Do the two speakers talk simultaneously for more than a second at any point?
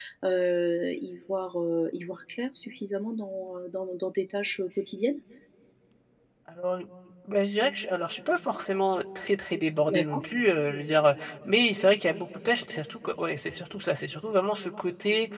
No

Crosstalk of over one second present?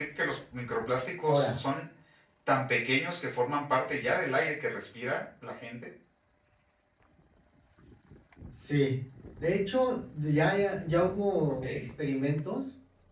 No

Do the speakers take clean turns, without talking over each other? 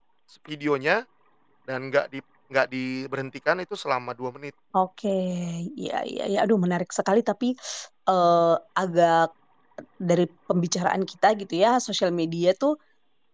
Yes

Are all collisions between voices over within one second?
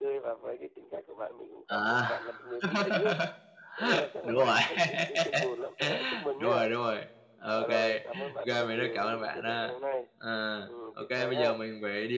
No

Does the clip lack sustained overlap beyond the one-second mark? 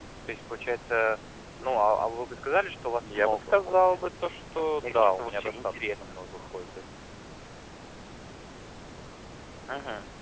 No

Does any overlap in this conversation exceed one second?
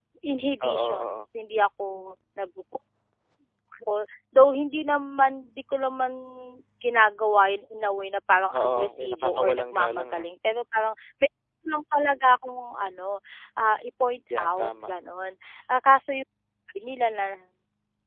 Yes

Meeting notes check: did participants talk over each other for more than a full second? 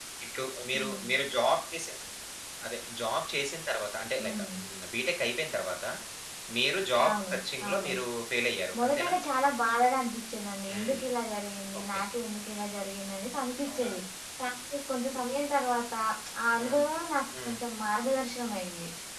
No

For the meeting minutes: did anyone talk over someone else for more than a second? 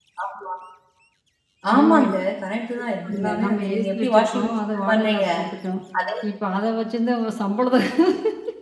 Yes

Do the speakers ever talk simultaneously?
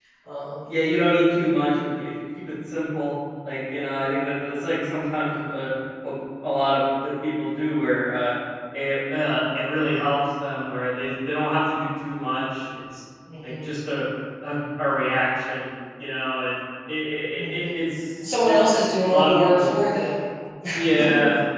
Yes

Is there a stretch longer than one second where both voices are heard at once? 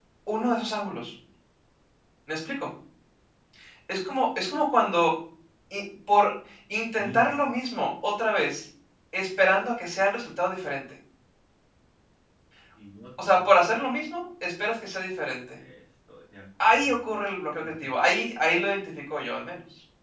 No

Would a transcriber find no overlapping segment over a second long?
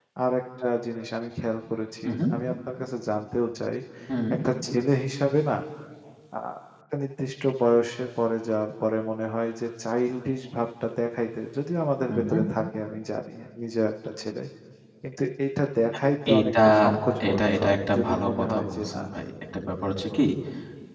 No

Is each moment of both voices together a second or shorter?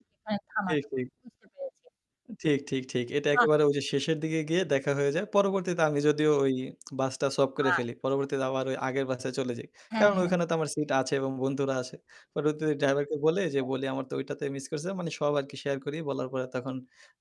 Yes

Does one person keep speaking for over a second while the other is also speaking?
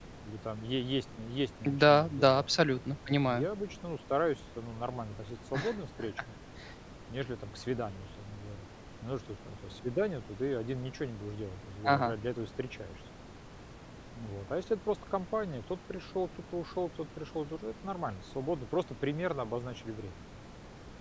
Yes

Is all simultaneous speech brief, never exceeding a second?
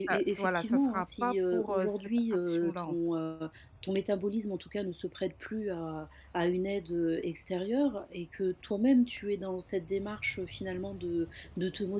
No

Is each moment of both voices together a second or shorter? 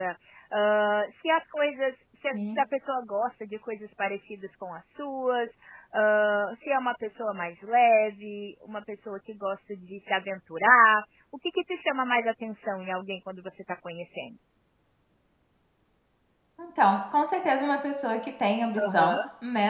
Yes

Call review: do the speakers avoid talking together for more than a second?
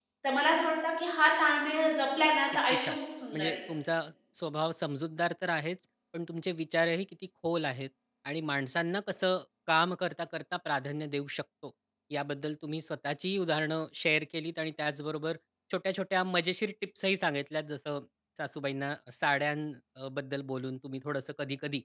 Yes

